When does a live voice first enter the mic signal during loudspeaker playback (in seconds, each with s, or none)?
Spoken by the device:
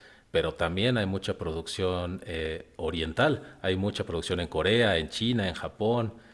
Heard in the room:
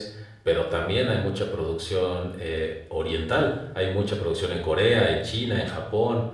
none